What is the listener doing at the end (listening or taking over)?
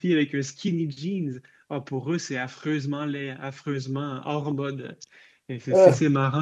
listening